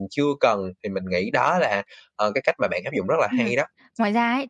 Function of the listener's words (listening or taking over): taking over